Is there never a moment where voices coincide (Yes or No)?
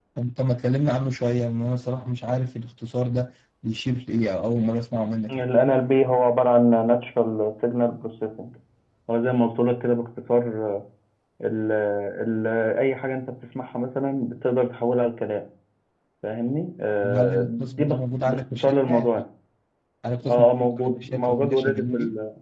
No